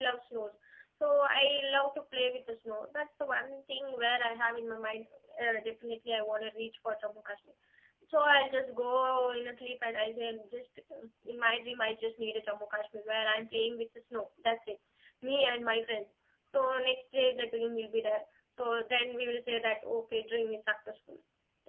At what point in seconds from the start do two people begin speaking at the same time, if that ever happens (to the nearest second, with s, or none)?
none